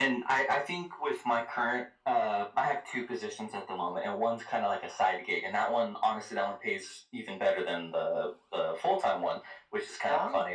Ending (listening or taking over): listening